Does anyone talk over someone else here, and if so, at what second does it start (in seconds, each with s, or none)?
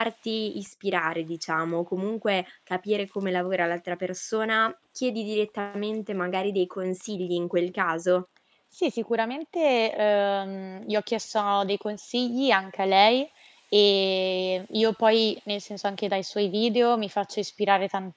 none